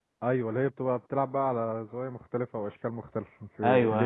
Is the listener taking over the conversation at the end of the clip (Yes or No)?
Yes